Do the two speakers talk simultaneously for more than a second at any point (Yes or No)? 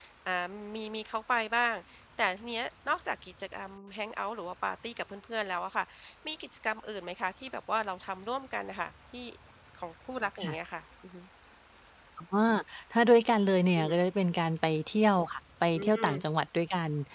No